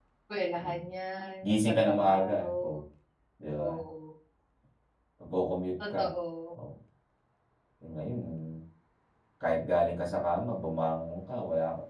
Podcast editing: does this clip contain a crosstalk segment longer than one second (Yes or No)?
Yes